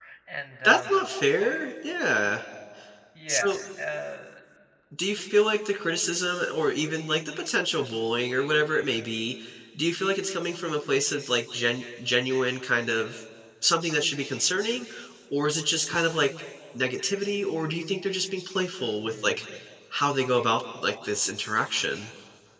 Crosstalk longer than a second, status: none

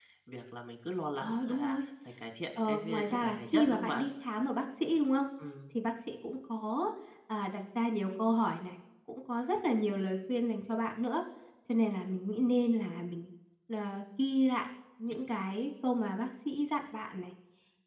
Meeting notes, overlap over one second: present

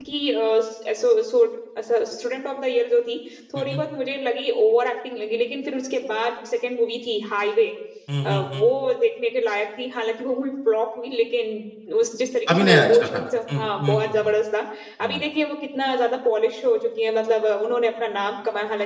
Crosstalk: present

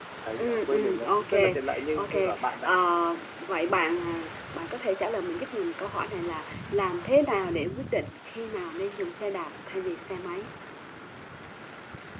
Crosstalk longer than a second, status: present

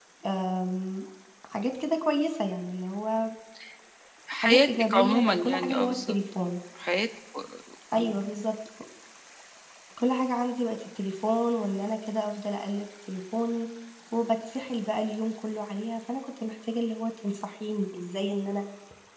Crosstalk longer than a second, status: present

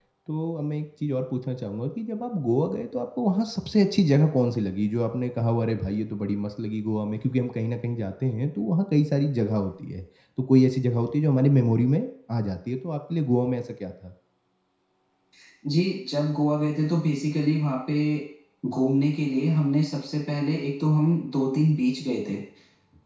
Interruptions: none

